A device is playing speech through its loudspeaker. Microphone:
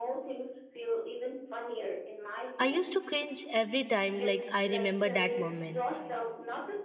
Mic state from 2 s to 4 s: both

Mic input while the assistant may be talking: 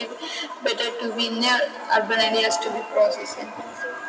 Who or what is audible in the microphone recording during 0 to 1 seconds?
echo only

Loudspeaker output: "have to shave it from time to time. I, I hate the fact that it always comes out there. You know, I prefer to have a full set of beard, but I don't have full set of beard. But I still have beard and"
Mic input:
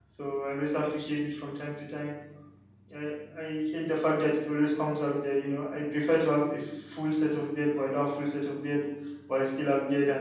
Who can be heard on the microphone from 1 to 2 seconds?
echo only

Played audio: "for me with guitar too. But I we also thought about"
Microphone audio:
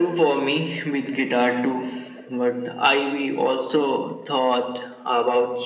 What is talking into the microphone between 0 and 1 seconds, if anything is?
echo only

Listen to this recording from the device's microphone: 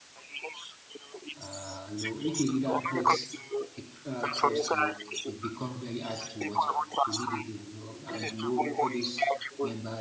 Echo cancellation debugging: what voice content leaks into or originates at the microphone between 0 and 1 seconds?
echo only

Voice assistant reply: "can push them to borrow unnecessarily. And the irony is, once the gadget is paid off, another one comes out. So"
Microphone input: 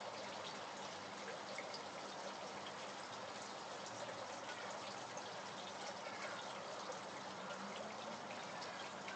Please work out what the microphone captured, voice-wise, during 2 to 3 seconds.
neither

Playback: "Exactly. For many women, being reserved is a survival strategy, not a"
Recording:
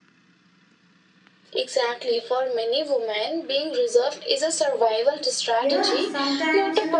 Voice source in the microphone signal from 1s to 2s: echo only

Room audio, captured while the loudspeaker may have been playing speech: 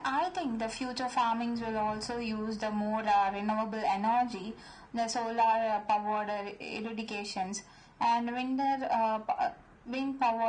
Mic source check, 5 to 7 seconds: echo only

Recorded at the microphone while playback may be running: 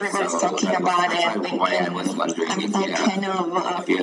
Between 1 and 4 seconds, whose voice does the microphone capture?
echo only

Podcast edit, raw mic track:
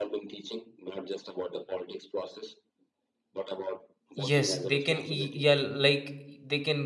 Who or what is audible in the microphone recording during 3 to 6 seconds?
both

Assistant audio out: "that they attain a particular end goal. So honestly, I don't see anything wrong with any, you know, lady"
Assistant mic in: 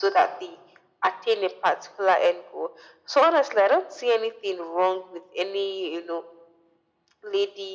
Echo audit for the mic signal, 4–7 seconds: echo only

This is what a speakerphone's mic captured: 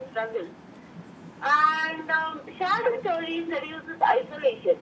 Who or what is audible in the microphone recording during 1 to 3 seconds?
echo only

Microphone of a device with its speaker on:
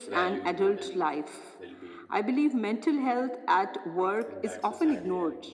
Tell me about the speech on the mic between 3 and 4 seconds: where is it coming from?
echo only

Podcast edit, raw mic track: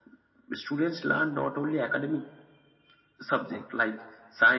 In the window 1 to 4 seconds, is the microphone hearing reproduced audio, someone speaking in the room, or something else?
echo only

